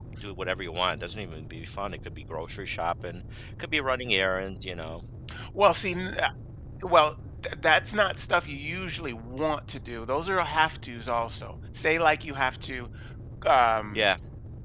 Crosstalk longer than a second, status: none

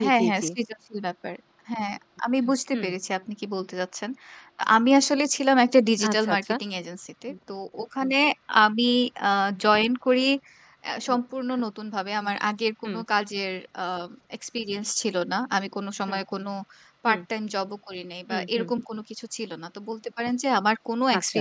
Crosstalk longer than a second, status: none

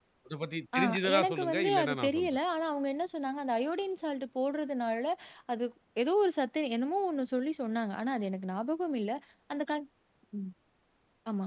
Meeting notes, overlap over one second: present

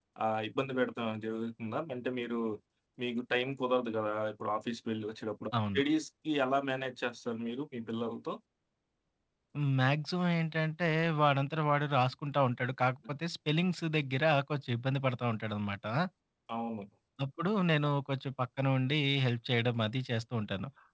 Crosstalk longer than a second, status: none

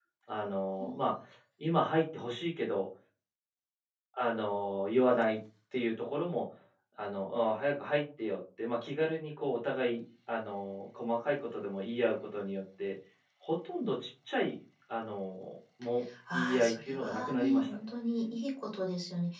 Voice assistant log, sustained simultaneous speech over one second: present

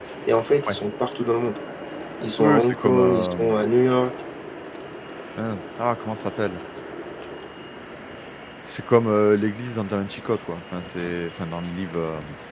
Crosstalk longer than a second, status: present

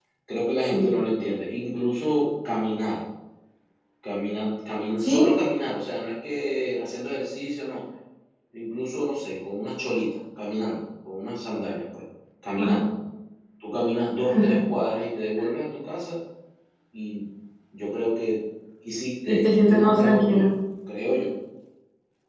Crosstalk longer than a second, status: present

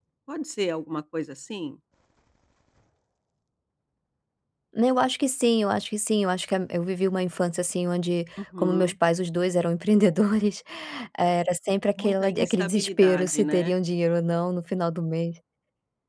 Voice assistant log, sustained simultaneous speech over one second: present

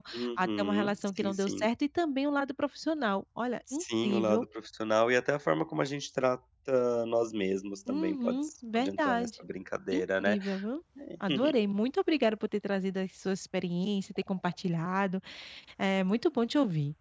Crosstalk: present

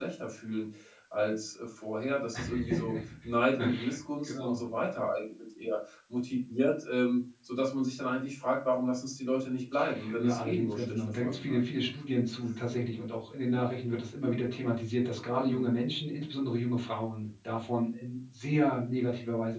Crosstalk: present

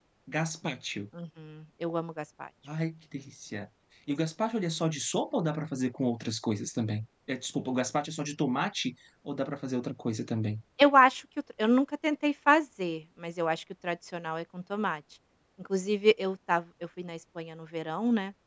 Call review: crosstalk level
none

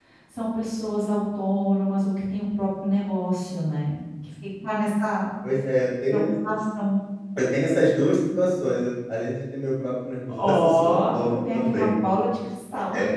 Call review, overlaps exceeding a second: present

